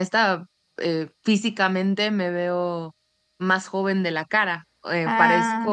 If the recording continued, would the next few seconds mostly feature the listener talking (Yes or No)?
No